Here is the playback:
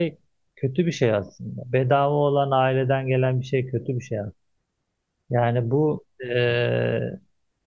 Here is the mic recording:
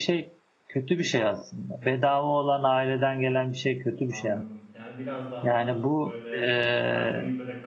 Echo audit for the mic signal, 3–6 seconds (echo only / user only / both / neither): both